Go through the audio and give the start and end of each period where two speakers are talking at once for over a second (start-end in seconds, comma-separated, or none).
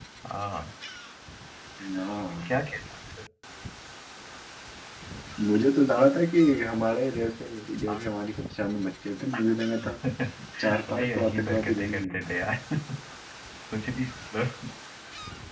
10.9-12.3